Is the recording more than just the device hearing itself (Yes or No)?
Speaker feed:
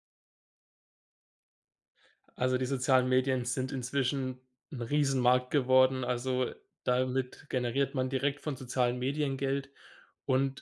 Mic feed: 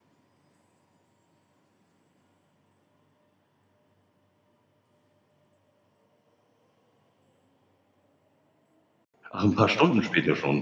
Yes